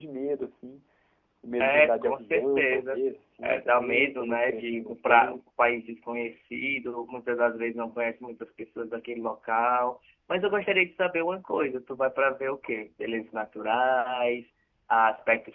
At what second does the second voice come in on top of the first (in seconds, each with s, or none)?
1.6 s